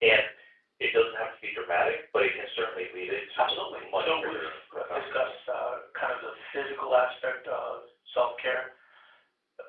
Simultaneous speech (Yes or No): Yes